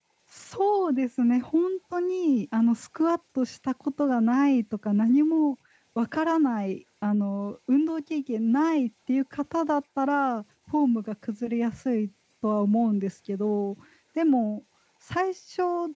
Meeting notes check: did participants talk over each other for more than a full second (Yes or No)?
No